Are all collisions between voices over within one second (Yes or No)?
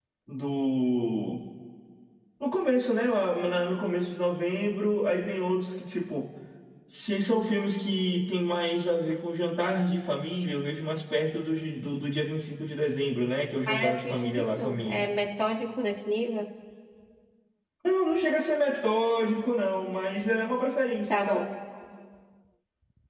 No